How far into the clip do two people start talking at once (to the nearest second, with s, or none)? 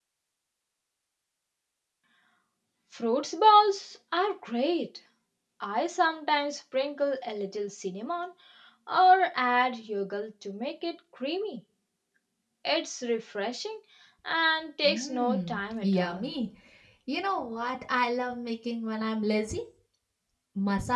15 s